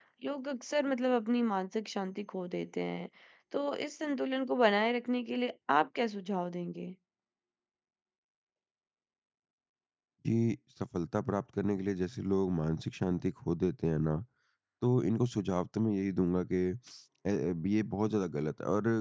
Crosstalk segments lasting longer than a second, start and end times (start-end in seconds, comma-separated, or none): none